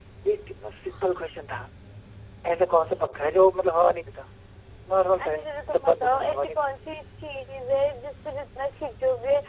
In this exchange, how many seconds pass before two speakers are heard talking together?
5 s

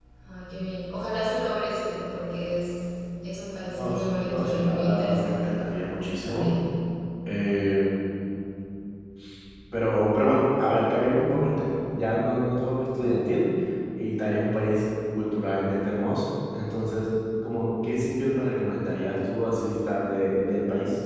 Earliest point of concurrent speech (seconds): 4 s

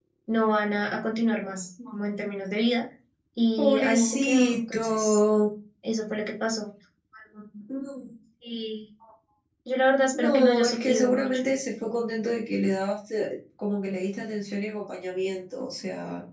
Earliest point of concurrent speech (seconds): 4 s

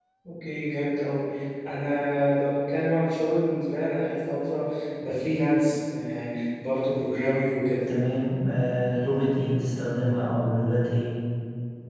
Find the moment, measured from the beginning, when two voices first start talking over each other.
none

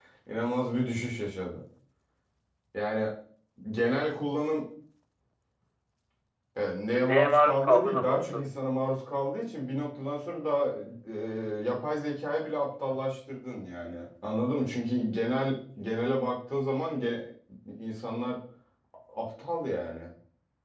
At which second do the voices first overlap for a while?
7 s

